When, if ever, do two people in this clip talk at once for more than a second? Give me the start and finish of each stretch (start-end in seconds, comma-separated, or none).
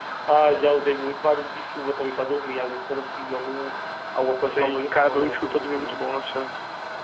4.4-6.0